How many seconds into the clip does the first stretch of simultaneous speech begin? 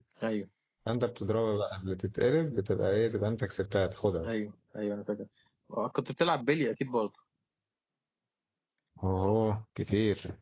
none

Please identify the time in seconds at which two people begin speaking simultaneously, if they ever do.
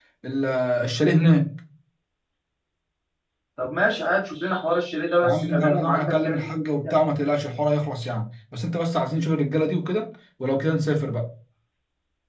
5.2 s

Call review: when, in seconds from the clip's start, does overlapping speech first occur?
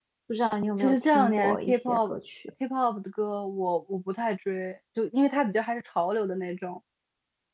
0.8 s

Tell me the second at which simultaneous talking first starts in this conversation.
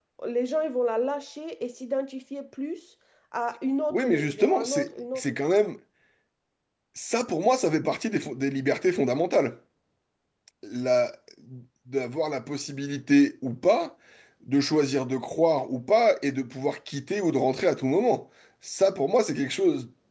3.9 s

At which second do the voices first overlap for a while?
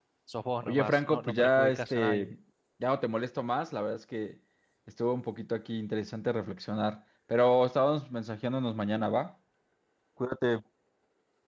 0.6 s

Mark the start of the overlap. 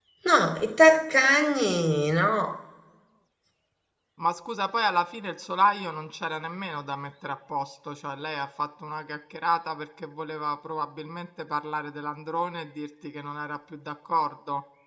none

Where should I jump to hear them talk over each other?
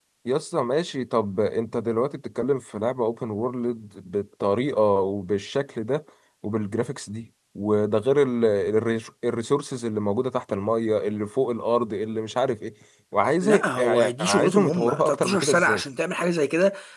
13.4 s

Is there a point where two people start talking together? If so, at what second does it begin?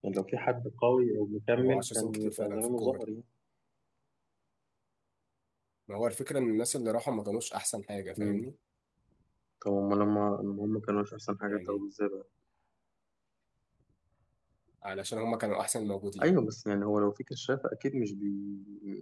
1.6 s

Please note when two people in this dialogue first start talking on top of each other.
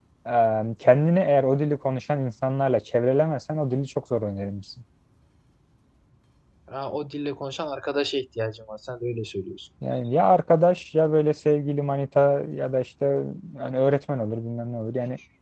none

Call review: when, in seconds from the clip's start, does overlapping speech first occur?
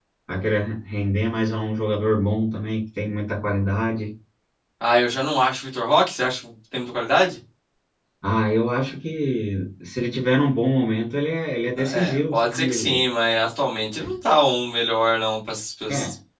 11.8 s

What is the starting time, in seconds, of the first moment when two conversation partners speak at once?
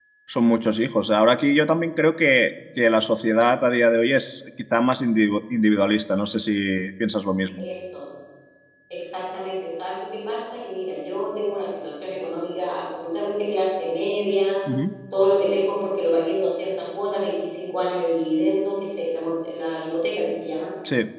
none

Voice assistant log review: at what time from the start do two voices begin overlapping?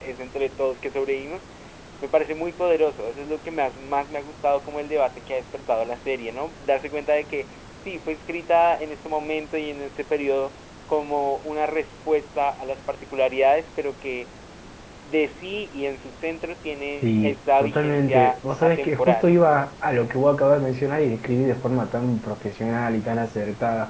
17.0 s

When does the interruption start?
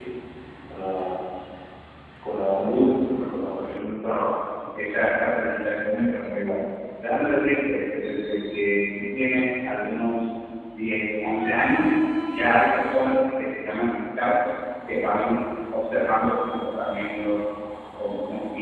none

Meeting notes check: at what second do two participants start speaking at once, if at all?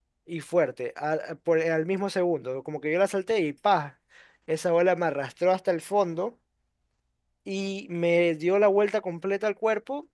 none

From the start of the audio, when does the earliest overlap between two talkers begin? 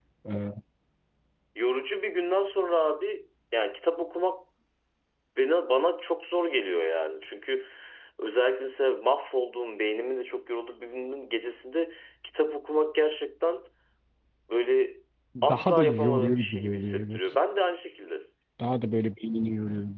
15.4 s

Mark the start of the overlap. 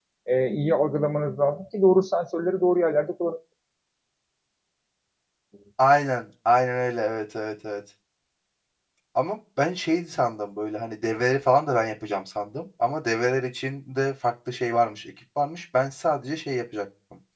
none

